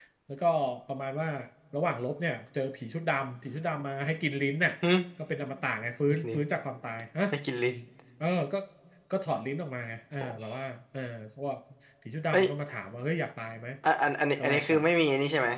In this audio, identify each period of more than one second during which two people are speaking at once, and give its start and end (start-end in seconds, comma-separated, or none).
none